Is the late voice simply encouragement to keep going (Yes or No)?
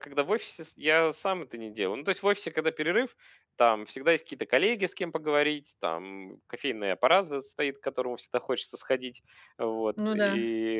Yes